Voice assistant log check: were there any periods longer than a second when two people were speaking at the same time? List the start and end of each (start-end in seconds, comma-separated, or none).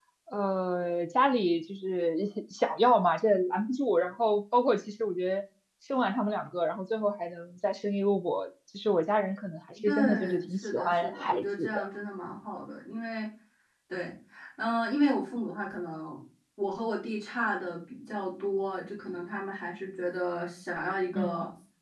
9.9-11.9